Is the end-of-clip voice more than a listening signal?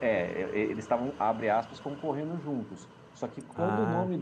No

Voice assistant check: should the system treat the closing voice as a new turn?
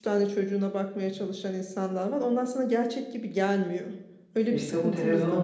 Yes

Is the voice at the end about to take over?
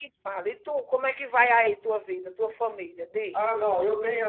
Yes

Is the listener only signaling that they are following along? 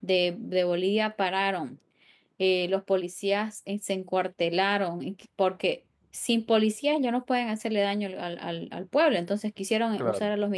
Yes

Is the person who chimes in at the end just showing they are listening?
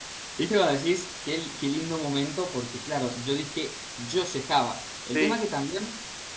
Yes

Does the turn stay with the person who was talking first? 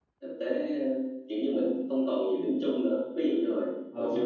Yes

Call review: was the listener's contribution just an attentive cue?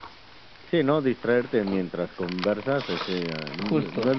Yes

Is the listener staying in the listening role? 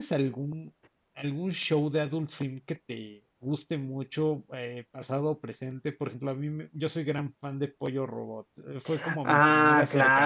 No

